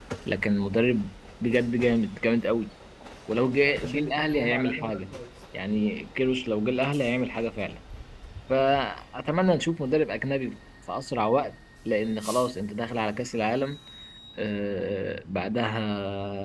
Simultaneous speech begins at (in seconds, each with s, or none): 3.6 s